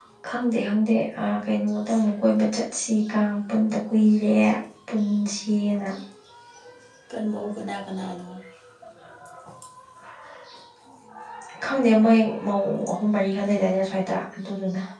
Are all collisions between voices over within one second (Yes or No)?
Yes